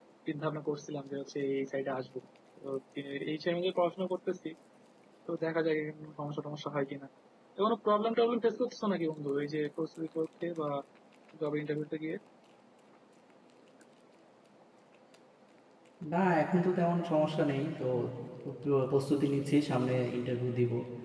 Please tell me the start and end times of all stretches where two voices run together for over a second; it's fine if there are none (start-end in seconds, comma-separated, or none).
none